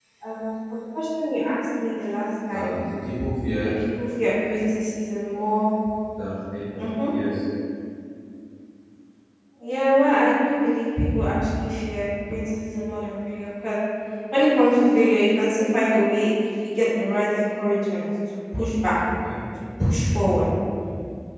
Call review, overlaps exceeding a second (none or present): none